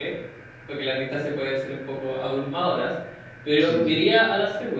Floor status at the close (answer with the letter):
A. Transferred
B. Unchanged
B